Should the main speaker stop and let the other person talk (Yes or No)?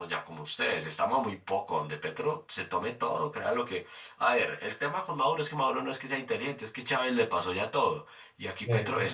No